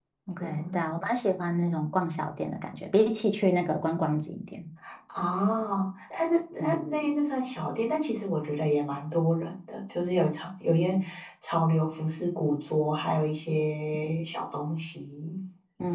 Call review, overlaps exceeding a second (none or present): none